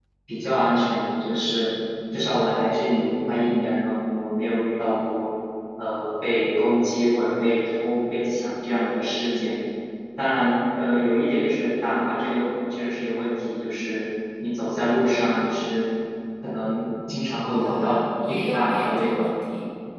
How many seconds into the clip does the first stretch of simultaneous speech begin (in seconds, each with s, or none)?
17.5 s